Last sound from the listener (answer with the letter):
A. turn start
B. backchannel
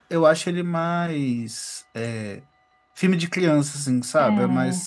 B